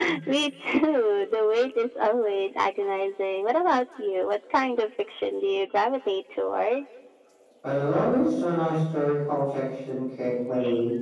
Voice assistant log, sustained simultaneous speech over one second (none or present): none